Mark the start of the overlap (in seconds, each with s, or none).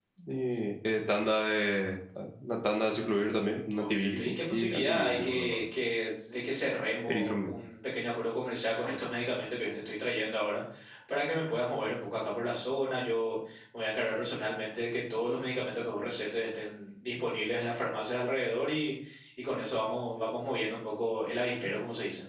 3.8 s